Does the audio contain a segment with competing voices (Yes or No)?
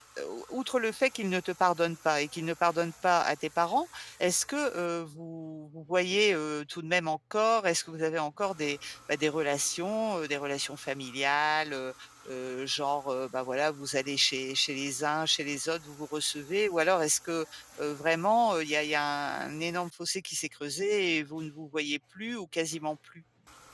No